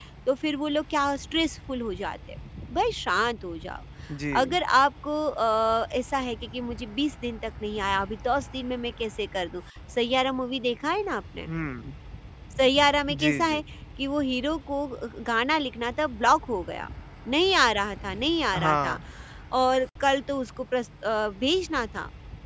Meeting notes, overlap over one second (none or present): none